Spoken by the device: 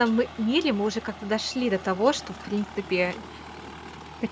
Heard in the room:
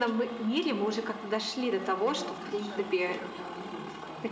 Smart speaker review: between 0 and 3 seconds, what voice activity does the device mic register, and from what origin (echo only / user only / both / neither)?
both